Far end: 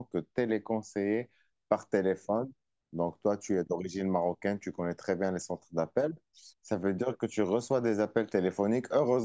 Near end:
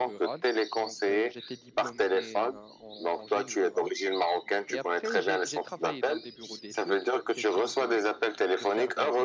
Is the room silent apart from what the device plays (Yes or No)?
No